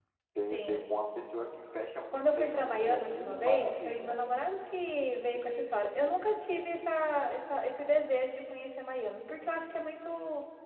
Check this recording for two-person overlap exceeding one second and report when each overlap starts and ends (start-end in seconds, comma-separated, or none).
2.1-4.2